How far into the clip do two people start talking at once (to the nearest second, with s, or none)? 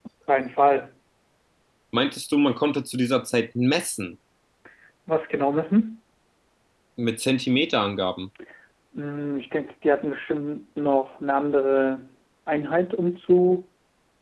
none